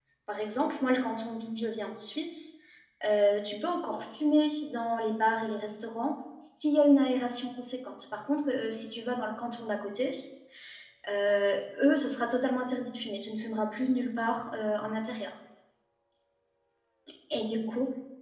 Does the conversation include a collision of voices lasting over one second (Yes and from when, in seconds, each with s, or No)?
No